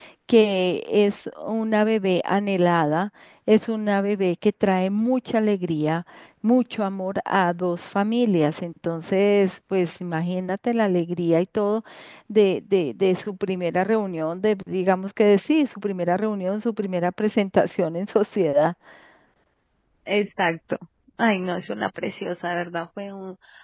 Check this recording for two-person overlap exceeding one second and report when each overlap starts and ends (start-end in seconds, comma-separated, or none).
none